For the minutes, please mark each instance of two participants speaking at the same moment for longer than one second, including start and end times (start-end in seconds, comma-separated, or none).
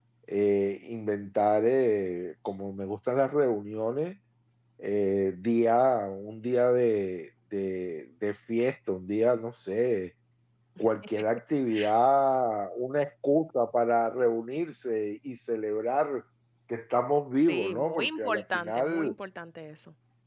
17.5-19.1